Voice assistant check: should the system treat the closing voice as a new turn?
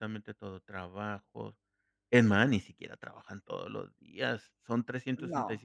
No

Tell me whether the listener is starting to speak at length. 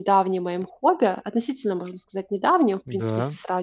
No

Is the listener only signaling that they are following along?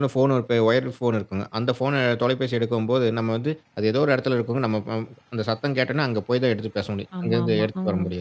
Yes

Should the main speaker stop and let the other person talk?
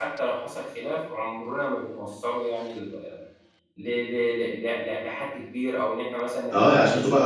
Yes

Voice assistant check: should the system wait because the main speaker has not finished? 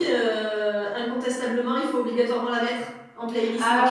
No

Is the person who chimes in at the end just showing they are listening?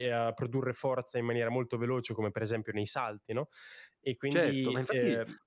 No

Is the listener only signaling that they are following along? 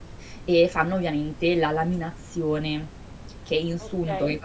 Yes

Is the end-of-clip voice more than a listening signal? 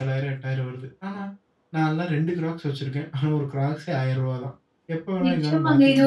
Yes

